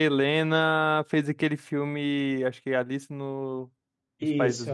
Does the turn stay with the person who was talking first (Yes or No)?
No